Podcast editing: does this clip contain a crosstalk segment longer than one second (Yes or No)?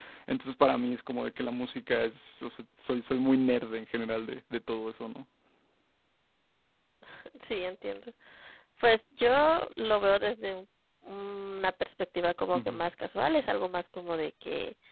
No